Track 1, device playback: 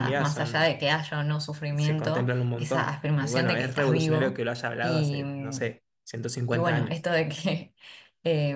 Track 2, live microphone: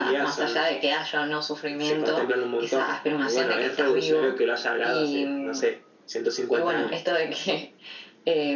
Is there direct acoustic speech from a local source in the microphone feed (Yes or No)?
No